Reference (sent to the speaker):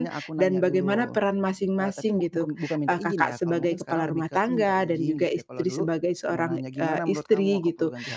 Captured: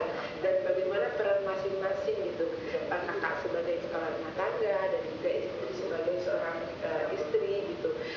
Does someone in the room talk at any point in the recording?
No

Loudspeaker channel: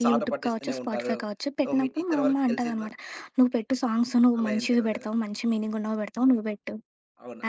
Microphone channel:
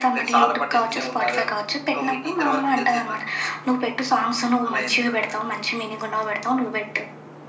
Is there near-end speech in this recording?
No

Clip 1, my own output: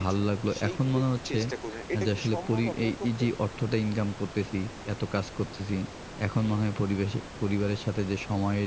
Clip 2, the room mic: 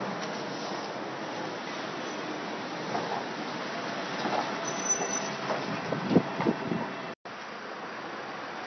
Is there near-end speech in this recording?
No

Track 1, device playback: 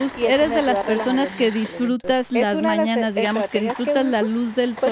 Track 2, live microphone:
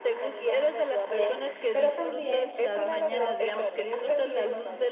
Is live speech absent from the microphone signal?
No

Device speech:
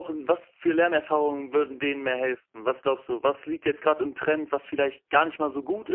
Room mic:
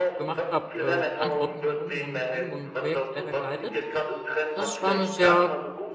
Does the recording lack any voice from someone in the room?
No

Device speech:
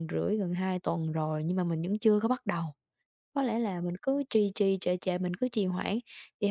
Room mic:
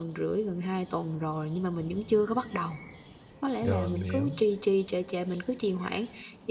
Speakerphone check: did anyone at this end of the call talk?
Yes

